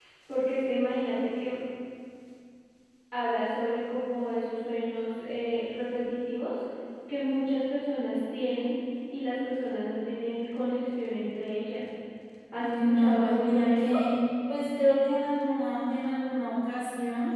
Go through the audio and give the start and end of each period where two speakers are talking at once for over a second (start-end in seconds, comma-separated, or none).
12.6-13.9